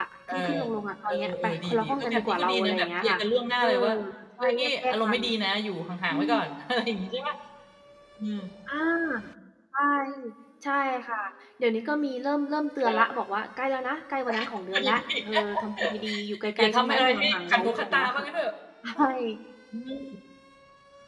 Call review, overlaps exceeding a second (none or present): present